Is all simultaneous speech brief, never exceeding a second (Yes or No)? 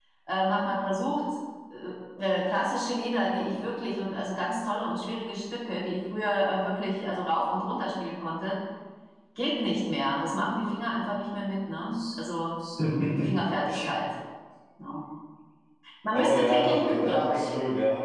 No